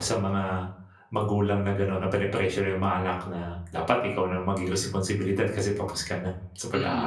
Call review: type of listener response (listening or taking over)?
taking over